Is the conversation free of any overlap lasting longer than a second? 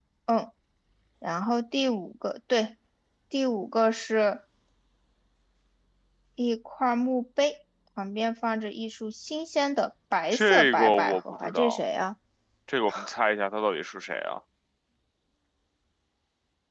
No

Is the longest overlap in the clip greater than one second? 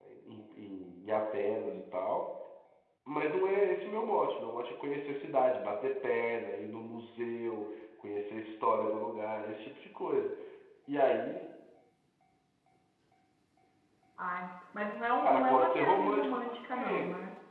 Yes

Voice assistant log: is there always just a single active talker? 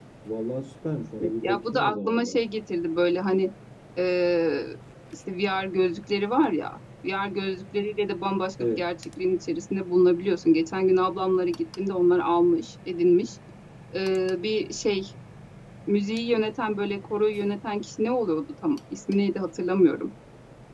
No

